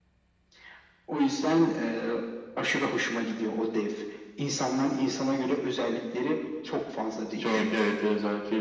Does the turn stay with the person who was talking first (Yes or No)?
No